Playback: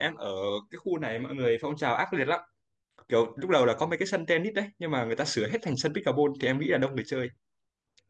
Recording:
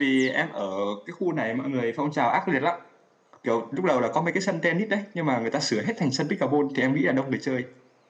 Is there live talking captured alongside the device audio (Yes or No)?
No